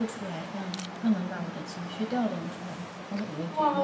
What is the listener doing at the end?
taking over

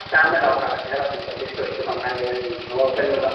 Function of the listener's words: listening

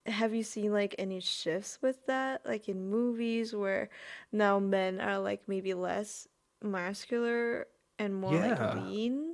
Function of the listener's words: taking over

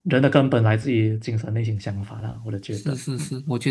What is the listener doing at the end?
taking over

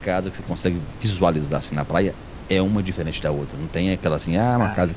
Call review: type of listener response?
listening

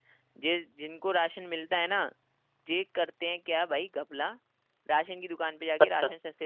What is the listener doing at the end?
listening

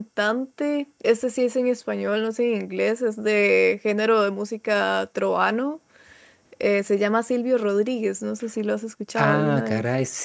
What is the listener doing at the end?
taking over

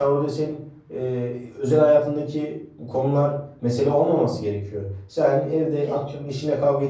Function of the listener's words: listening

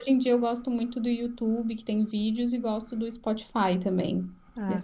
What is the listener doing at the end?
taking over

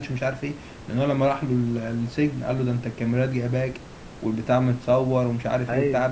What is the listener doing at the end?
listening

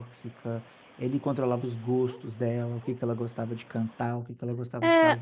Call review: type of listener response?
taking over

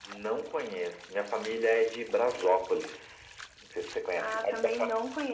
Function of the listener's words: taking over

